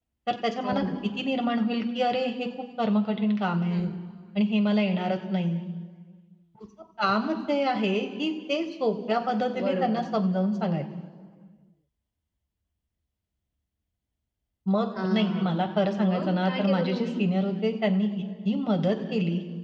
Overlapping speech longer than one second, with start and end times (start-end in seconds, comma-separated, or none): 15.0-17.2